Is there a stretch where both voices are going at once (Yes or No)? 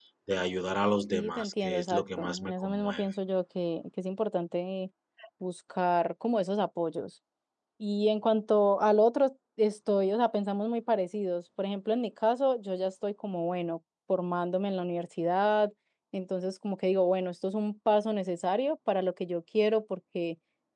Yes